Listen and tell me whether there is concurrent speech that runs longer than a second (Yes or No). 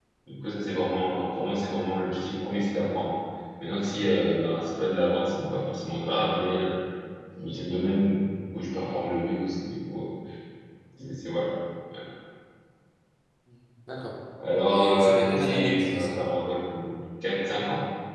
Yes